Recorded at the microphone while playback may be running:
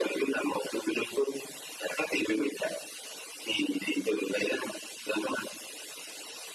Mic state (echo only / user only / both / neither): echo only